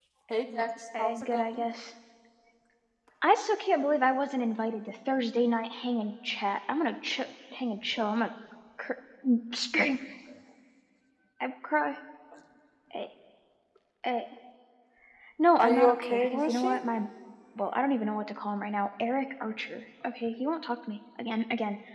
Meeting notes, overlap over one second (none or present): present